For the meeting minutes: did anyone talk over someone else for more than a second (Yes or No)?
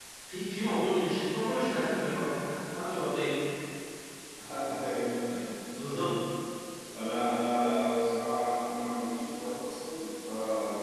No